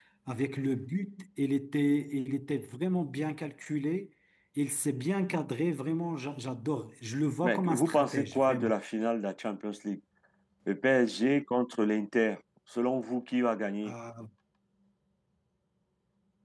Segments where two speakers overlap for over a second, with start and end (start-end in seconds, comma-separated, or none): 7.4-8.7